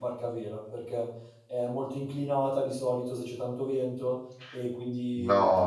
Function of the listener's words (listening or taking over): taking over